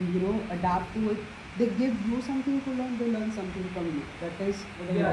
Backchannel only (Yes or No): No